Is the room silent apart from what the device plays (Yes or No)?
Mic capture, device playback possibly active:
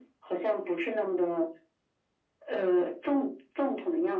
Yes